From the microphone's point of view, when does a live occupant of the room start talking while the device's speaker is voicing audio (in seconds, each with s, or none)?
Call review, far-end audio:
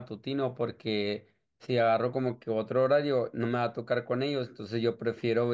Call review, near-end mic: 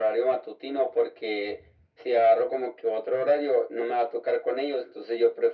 none